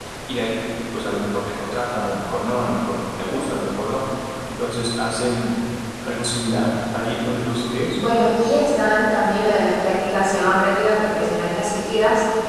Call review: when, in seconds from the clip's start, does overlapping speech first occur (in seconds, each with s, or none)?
none